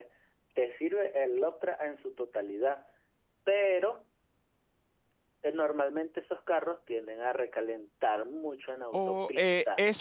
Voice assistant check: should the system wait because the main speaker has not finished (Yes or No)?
No